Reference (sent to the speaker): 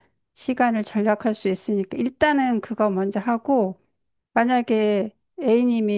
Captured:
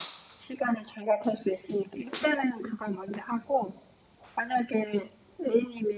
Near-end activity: none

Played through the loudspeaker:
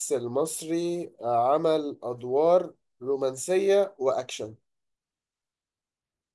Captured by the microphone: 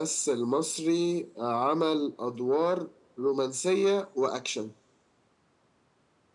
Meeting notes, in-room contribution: none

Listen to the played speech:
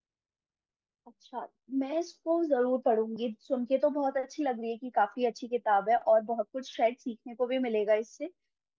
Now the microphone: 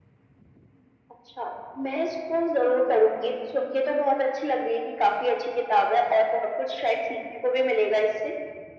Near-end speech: none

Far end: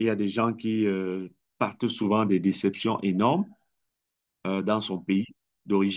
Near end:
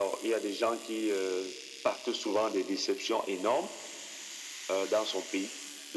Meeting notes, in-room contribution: none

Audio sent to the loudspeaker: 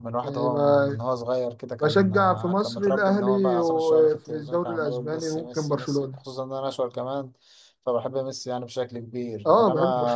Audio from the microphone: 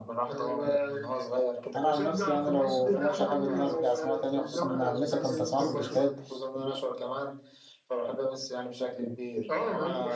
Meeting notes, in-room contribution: present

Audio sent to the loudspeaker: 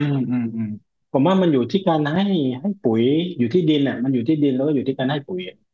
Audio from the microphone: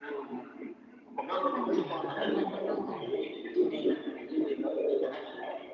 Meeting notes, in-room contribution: present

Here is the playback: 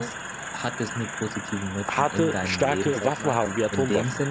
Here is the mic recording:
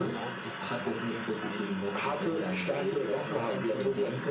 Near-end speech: present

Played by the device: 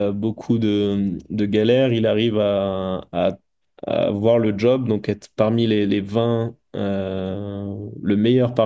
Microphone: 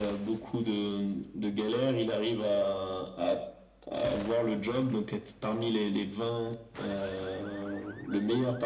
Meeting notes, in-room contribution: none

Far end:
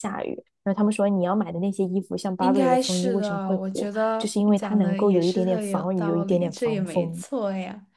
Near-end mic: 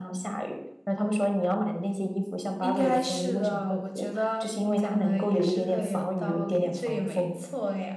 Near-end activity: none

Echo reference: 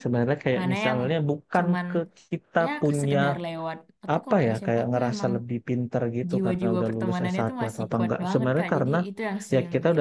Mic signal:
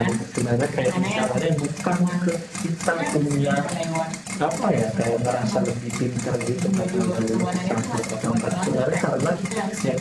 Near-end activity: none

